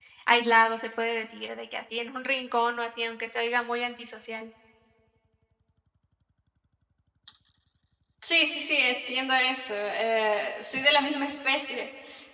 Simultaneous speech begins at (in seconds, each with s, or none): none